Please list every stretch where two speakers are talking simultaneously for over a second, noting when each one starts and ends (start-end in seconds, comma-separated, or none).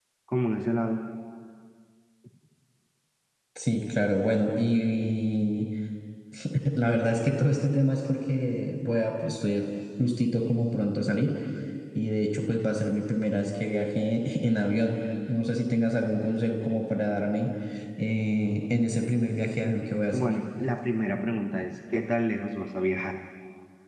none